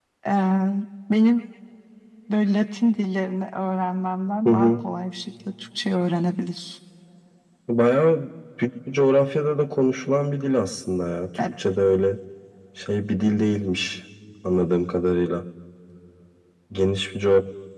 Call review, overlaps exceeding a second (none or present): none